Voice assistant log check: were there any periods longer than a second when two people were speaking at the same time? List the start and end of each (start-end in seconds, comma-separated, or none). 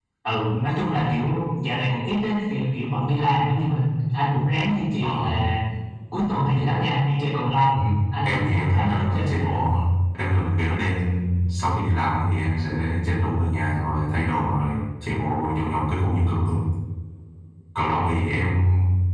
8.2-9.5